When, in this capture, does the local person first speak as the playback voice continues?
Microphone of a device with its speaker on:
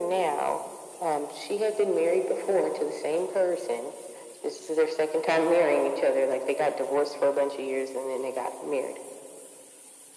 none

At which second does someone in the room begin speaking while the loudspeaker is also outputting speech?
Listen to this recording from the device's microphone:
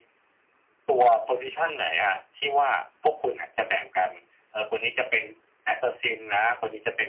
none

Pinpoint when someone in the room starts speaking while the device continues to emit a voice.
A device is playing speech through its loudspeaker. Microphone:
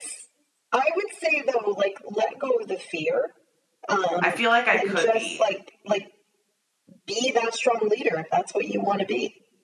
4.2 s

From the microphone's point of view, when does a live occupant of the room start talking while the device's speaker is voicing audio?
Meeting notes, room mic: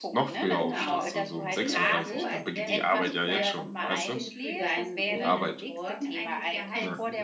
0.5 s

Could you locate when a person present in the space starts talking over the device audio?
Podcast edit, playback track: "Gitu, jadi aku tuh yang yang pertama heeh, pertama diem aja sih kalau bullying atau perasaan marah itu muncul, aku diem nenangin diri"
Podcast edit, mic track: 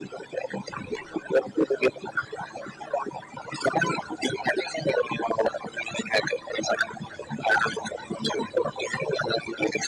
none

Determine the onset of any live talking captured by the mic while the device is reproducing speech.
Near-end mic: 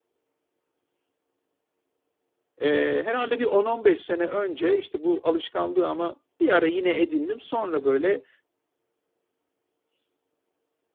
2.6 s

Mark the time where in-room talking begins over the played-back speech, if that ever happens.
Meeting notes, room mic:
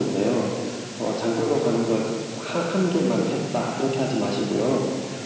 none

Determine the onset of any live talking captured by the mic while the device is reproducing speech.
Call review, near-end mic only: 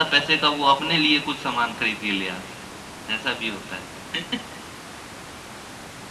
none

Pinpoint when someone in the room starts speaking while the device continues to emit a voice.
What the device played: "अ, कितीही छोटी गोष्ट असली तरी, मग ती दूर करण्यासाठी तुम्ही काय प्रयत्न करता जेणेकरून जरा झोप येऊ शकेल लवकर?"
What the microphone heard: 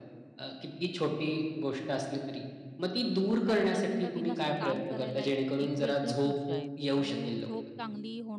3.5 s

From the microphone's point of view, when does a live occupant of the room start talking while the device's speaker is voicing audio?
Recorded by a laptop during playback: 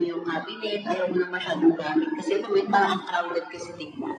none

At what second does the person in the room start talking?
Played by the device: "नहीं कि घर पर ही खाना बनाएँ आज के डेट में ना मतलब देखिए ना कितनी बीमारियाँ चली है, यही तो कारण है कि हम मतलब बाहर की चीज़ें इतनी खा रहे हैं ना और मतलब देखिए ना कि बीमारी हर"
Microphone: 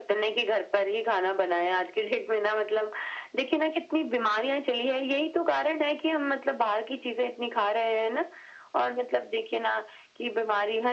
none

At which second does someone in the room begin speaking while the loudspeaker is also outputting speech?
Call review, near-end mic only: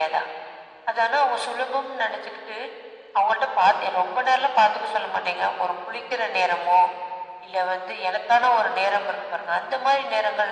none

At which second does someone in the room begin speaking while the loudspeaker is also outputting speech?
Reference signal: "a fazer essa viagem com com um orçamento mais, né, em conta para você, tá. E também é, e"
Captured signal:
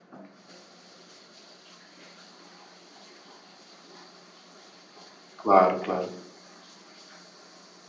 5.4 s

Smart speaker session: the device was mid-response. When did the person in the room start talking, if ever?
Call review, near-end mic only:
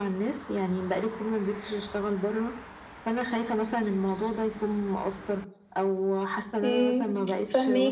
6.6 s

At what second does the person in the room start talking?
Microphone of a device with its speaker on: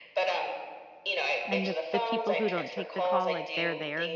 1.4 s

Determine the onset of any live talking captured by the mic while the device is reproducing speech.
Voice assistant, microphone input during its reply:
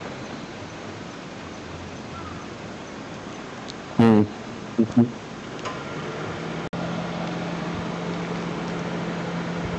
4.0 s

